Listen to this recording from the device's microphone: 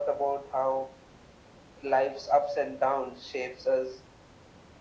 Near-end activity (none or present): none